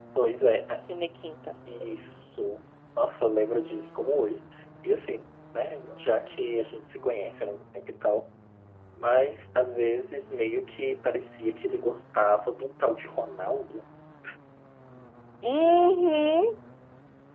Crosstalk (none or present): none